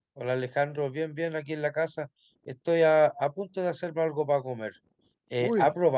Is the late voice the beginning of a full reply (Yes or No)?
No